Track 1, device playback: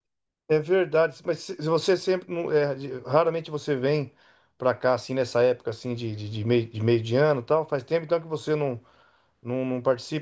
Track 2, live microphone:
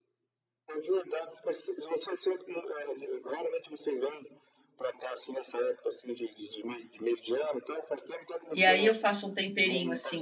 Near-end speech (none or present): present